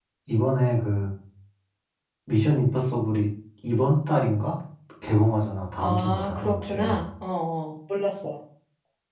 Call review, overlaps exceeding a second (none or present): present